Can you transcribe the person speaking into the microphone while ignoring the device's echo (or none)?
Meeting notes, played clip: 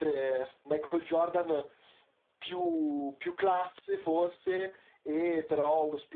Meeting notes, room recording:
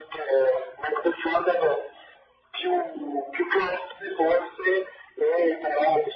none